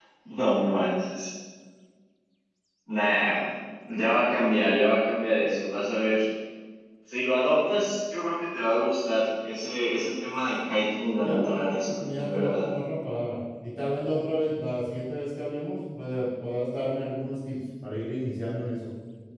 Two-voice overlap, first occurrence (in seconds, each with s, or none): 11.2 s